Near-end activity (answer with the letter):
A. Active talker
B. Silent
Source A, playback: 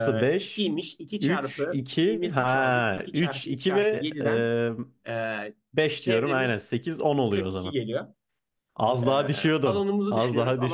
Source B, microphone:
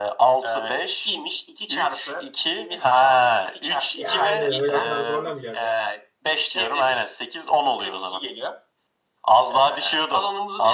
A